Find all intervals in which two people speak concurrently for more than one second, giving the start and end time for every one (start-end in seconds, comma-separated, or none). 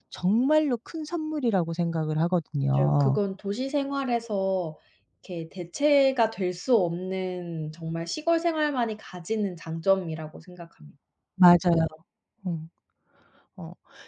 none